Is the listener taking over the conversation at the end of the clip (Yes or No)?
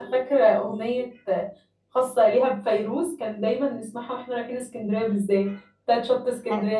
No